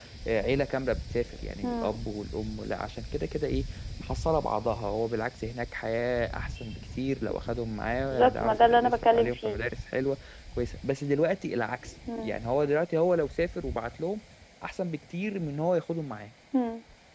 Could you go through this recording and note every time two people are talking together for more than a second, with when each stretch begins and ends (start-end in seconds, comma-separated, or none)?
8.1-9.6